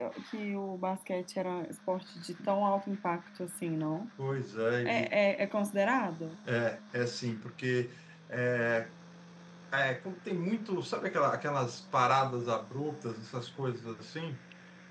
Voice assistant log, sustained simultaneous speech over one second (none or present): none